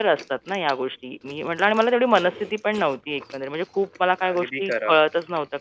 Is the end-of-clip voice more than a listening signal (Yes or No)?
No